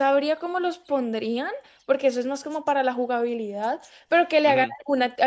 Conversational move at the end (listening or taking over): listening